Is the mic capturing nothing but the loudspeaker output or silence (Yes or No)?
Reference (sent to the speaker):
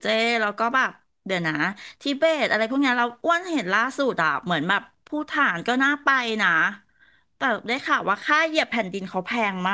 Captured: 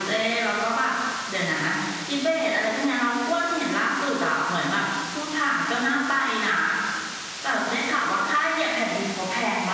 Yes